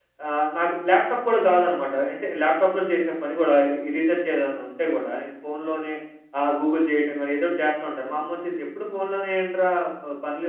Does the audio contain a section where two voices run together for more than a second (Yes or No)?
No